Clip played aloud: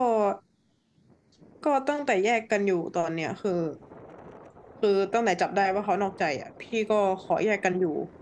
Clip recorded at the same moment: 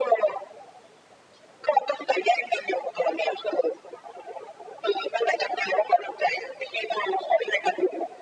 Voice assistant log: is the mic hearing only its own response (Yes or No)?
Yes